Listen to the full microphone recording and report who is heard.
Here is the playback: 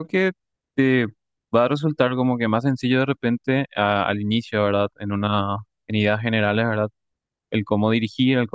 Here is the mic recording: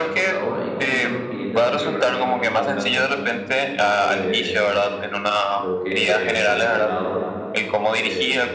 both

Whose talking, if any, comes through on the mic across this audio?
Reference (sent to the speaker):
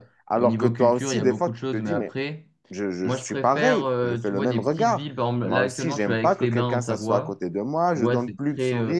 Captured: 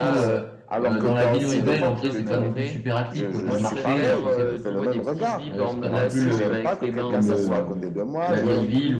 both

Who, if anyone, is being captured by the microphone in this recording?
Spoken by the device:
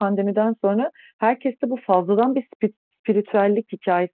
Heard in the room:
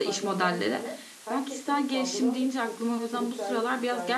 both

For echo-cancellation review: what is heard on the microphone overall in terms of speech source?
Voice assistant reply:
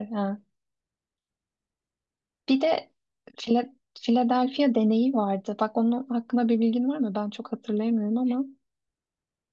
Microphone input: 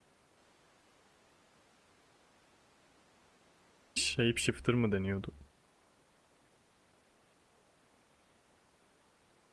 user only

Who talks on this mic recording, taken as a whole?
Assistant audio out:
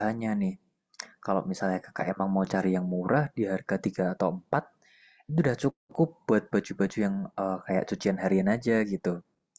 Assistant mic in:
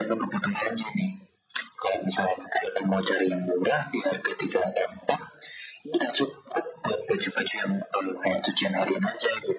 echo only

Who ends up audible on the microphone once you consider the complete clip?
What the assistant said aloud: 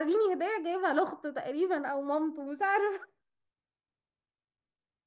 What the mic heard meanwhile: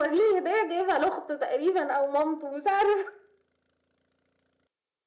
echo only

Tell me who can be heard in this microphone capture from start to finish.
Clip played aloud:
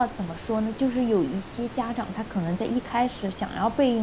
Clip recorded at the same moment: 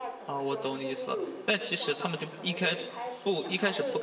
both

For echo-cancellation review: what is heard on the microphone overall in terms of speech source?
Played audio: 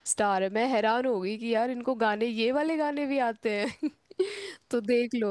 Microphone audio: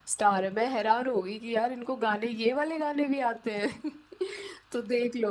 echo only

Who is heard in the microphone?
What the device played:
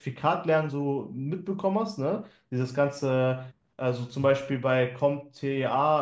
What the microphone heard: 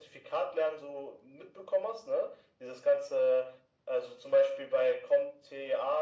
echo only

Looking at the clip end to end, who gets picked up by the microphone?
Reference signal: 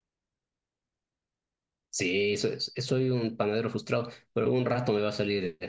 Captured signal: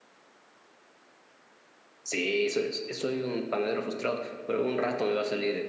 echo only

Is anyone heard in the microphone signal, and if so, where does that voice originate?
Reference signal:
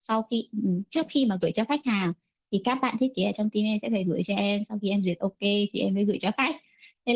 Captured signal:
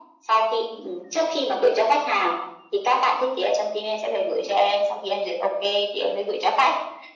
echo only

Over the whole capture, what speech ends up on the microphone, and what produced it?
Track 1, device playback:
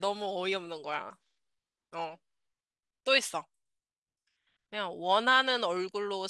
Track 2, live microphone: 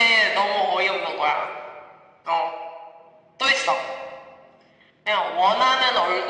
echo only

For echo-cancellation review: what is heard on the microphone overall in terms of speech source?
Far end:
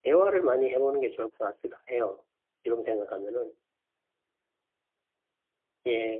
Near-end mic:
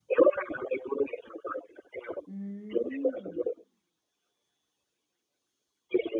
both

